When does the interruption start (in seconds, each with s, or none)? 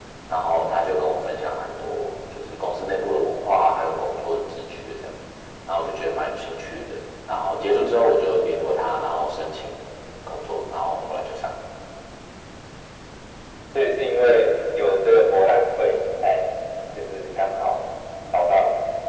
none